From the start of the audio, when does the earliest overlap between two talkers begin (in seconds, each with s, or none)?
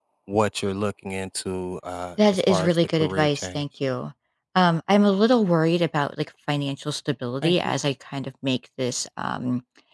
2.3 s